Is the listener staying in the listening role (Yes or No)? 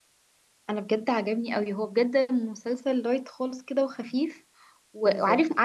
Yes